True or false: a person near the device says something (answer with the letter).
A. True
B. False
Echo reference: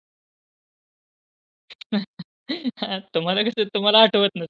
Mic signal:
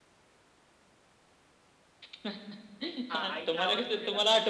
A